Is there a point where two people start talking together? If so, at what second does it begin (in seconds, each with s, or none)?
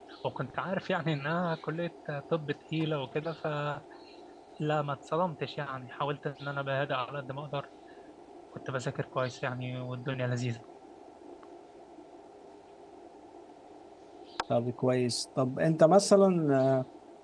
none